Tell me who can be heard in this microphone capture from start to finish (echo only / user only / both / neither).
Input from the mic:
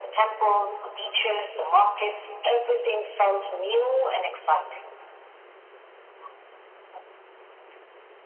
echo only